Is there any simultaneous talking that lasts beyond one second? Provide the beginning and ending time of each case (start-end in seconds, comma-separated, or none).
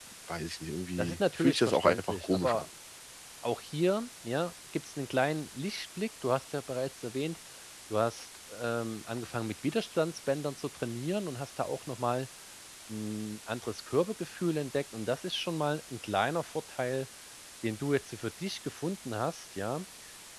1.0-2.6